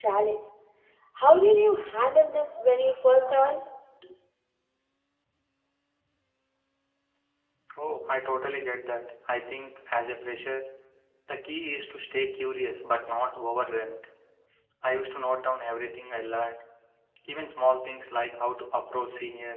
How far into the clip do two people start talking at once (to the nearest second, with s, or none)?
none